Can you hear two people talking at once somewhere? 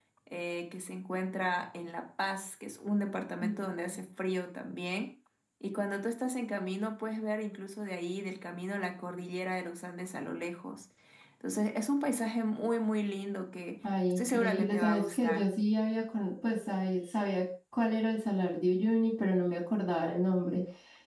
Yes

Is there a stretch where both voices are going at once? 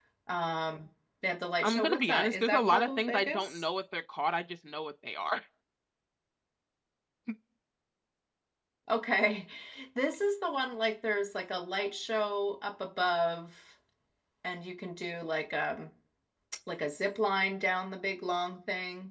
Yes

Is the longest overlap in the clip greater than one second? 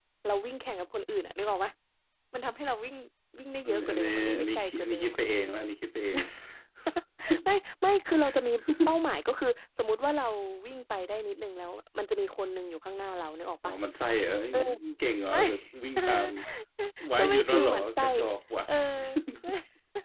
Yes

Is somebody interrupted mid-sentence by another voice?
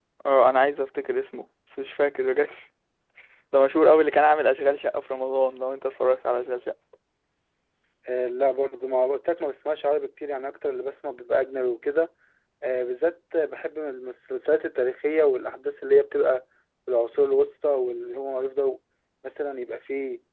No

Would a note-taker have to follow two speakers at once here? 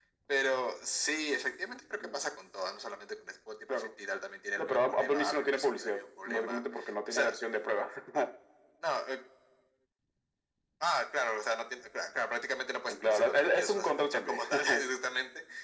Yes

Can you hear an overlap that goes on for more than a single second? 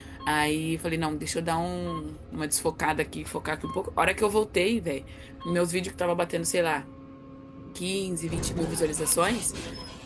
No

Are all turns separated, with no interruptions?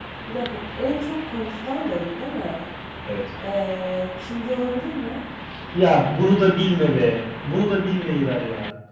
Yes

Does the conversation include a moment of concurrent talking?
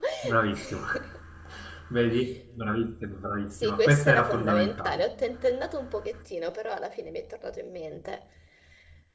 Yes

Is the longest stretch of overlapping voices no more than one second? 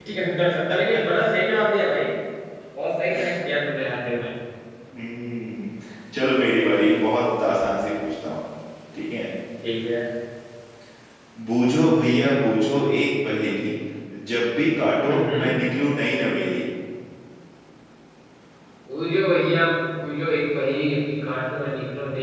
Yes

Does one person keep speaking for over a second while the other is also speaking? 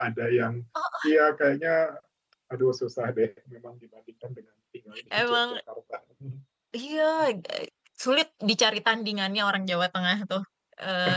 No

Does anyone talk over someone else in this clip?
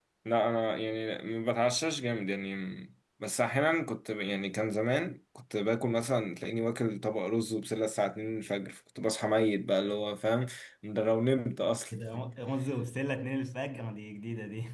No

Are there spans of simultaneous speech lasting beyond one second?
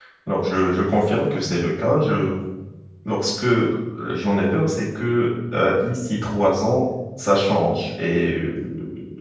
No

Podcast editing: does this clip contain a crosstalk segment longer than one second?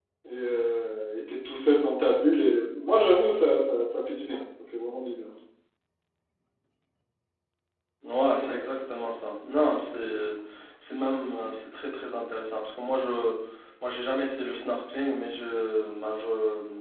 No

